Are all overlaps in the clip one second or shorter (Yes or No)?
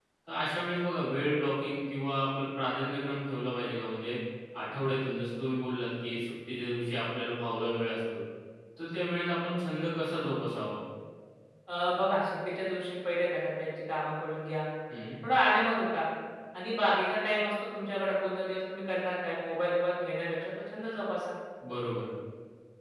Yes